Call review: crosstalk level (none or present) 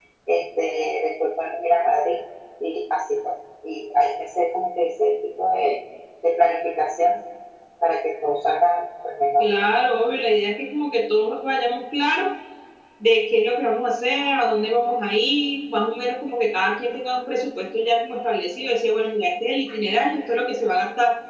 none